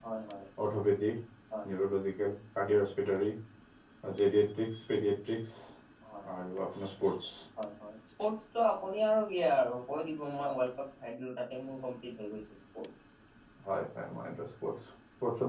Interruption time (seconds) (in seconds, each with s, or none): none